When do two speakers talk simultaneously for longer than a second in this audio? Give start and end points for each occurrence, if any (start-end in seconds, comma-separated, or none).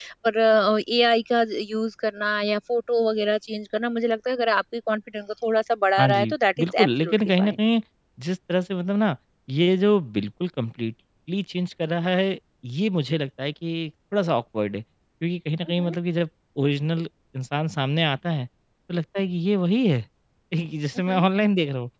6.0-7.5